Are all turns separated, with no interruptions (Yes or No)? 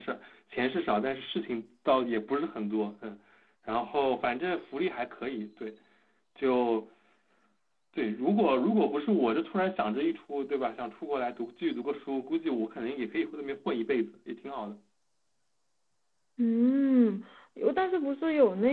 Yes